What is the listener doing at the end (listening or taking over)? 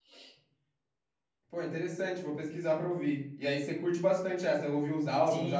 taking over